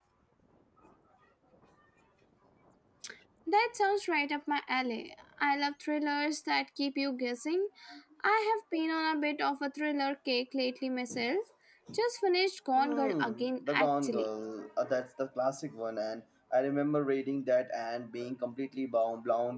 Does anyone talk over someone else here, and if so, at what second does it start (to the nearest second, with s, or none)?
13 s